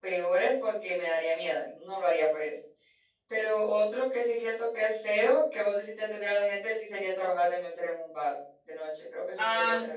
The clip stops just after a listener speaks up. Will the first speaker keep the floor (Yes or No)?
No